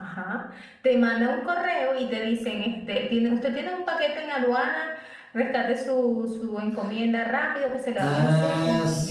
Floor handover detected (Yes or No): Yes